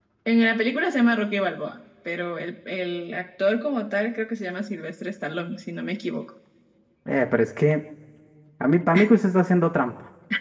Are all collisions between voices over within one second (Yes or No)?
Yes